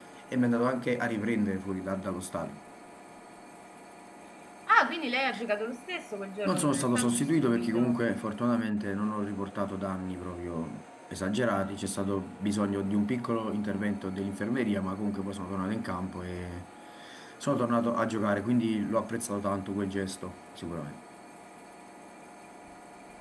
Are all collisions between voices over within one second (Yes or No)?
No